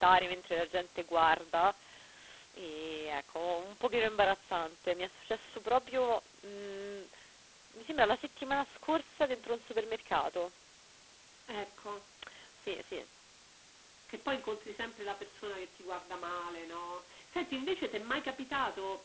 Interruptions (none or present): none